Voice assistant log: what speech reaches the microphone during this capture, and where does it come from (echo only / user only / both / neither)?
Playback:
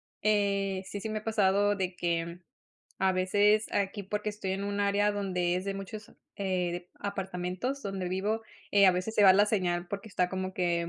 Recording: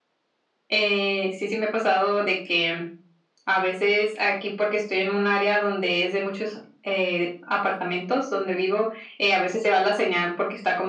echo only